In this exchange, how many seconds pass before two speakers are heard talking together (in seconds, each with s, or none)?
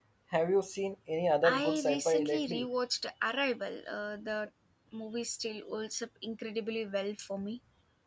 1.4 s